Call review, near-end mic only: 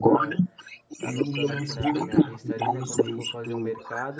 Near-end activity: present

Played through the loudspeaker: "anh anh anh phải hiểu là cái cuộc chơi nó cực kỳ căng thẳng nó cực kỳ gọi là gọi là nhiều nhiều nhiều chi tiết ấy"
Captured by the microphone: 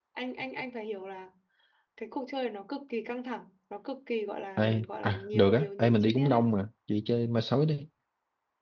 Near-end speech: present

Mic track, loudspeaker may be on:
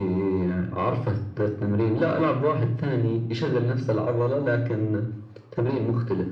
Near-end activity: none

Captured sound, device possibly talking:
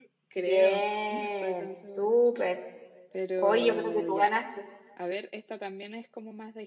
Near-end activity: present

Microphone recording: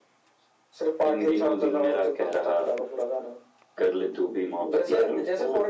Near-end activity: none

